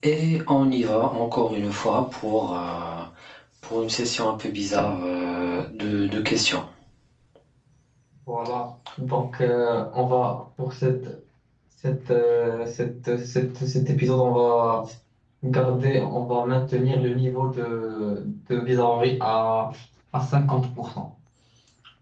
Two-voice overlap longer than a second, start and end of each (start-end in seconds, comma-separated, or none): none